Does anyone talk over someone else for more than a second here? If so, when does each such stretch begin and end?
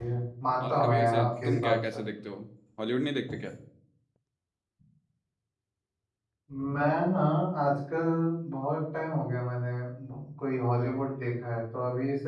0.6-2.0

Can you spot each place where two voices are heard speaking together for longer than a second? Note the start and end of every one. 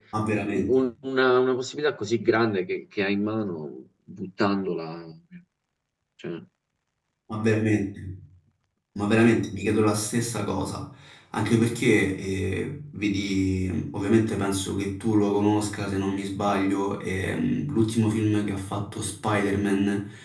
none

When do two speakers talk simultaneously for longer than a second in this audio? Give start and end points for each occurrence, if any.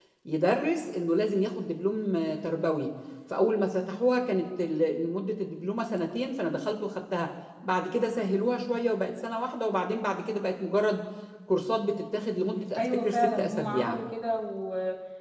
12.8-14.0

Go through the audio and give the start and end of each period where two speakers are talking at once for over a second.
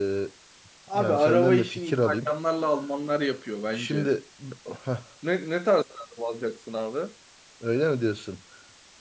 0.9-2.3

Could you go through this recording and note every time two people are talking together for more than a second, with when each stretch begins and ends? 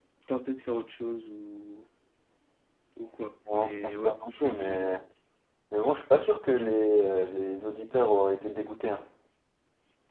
3.5-5.0

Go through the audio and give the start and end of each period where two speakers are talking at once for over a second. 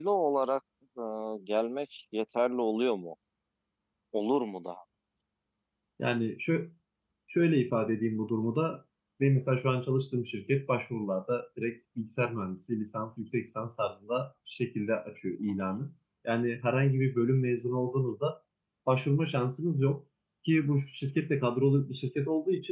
none

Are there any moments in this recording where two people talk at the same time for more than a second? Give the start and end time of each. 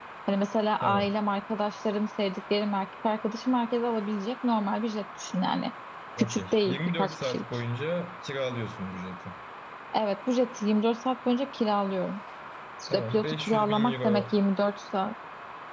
6.2-7.4, 12.9-14.3

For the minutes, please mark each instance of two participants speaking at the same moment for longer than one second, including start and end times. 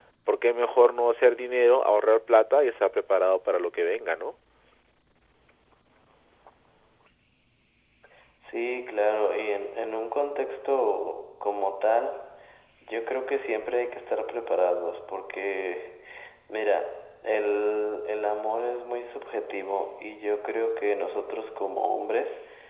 none

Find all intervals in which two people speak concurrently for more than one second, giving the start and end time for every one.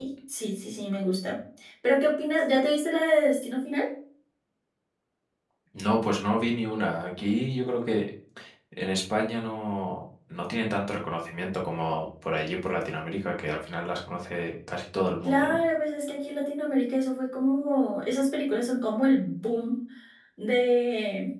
none

